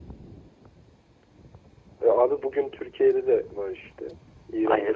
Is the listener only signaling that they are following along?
No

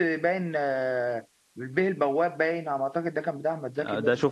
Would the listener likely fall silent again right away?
No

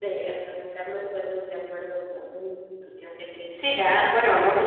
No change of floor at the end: No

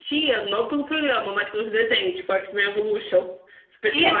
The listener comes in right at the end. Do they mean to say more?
Yes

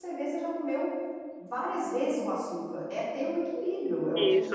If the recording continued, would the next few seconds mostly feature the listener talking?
Yes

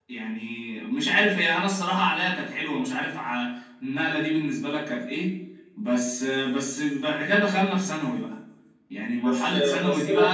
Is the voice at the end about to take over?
Yes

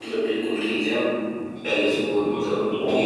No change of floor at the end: No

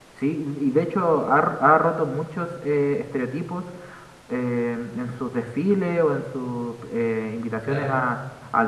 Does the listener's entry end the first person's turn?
No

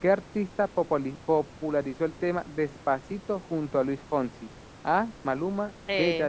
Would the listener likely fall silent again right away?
Yes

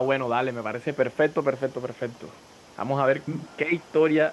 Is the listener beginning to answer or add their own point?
No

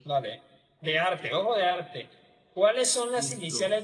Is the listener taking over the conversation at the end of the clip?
No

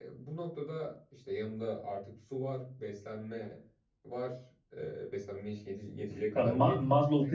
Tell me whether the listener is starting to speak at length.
Yes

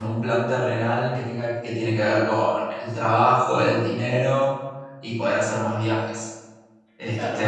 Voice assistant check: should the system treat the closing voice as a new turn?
Yes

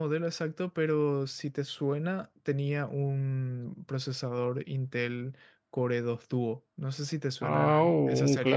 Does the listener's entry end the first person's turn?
Yes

